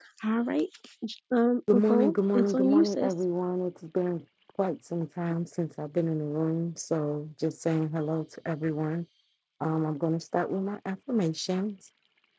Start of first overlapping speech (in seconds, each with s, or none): 1.7 s